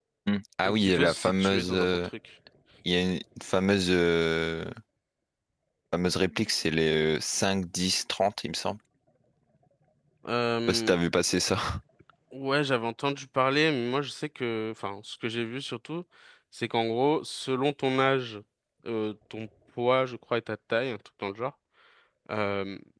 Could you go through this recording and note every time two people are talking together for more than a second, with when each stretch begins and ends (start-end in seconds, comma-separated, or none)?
0.6-2.0